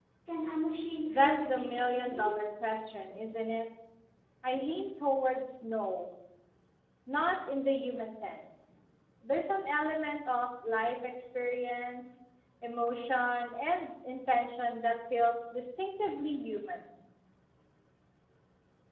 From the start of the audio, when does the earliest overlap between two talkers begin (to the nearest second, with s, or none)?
1 s